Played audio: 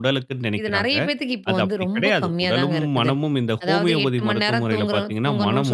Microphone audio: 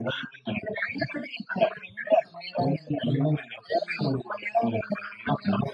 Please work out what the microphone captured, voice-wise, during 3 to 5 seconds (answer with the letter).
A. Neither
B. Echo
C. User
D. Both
B